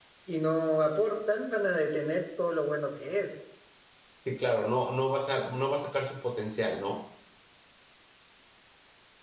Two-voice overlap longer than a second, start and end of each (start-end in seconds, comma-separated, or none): none